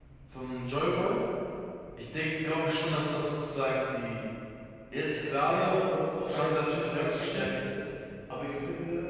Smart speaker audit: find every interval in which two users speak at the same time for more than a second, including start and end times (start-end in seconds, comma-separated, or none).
6.2-7.6